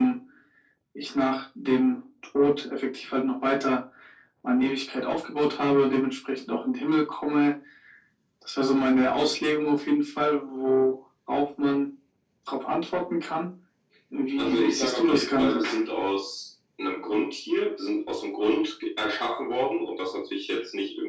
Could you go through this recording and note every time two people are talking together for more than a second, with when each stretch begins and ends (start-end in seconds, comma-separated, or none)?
14.4-15.6